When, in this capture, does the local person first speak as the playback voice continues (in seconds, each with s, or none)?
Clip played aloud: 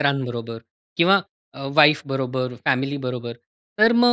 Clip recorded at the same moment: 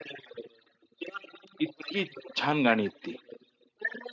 1.6 s